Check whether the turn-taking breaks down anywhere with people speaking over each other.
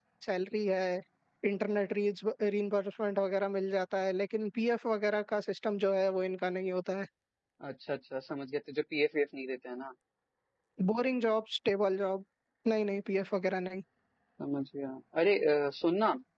No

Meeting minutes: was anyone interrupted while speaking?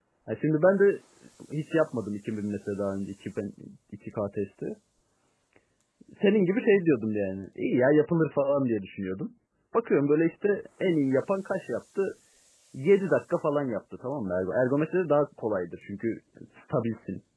No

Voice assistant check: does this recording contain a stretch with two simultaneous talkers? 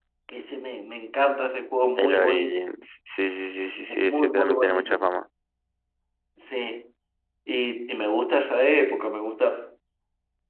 Yes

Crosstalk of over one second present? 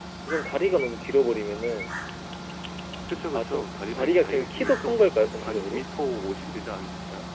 Yes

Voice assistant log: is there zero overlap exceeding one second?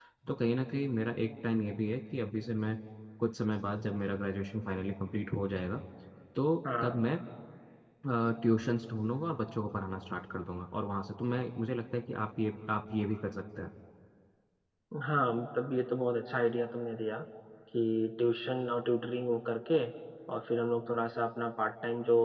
Yes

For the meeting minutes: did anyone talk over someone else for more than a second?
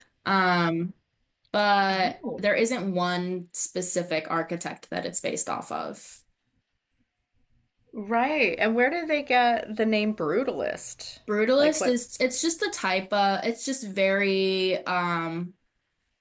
No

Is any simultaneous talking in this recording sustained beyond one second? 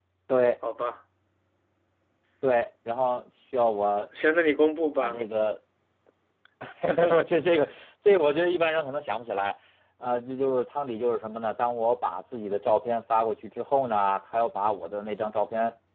No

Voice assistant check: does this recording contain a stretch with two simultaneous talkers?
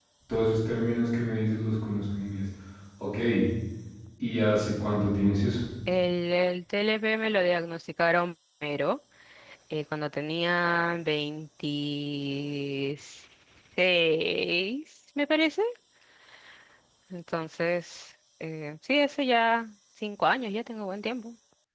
No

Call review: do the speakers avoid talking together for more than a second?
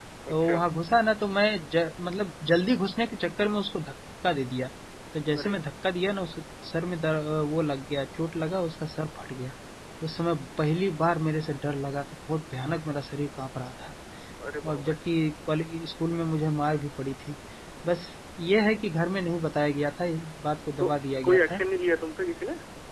Yes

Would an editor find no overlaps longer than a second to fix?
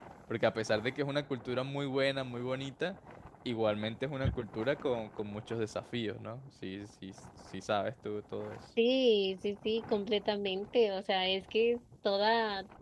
Yes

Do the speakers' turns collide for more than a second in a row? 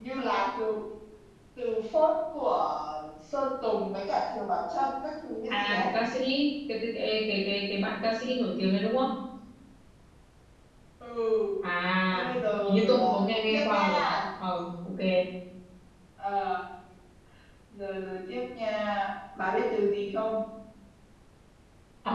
Yes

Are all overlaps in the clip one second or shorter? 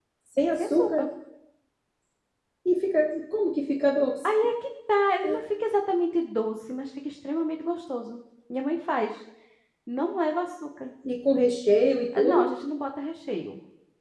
Yes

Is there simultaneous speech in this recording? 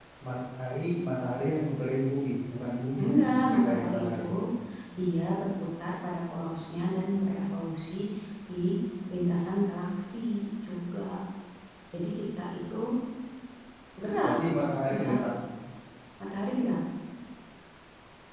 Yes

